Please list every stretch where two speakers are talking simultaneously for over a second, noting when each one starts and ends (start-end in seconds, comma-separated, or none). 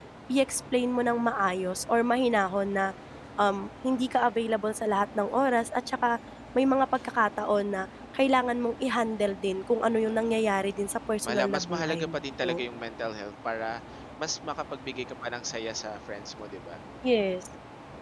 11.2-12.7